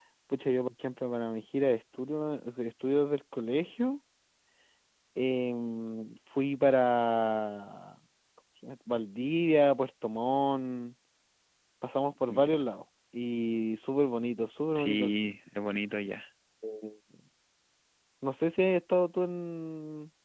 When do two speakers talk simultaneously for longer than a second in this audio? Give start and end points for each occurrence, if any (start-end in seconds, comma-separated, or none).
none